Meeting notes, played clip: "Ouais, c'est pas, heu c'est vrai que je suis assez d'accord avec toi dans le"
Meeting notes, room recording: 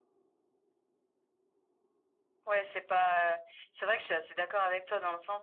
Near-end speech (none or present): none